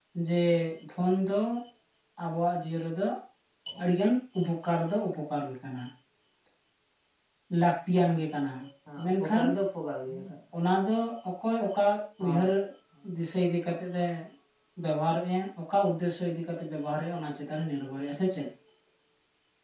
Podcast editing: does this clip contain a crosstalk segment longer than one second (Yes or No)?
No